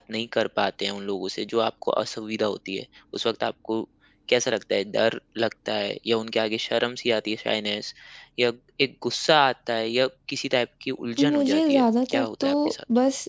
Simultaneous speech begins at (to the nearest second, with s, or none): 11 s